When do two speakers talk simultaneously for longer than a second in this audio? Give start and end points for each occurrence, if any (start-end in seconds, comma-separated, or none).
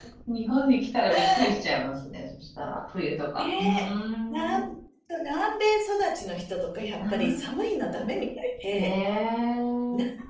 none